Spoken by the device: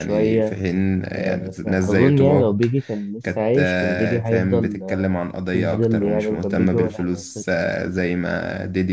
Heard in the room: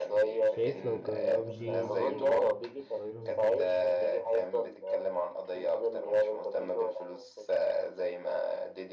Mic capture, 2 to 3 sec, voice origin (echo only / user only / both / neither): both